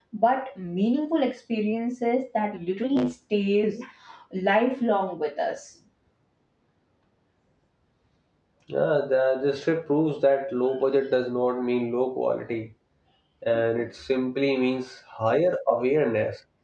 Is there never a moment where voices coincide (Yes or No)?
Yes